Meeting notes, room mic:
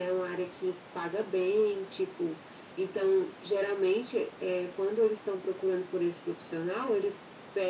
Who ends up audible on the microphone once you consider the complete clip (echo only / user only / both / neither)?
echo only